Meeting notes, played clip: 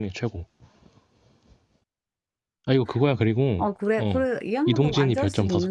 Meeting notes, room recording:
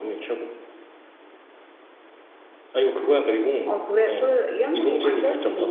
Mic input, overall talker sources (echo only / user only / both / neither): echo only